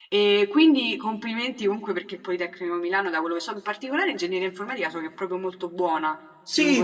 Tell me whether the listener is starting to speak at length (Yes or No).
Yes